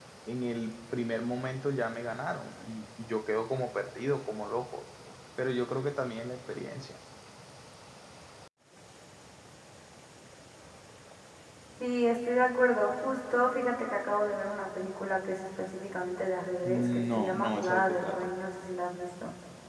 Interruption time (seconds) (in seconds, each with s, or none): 16.6 s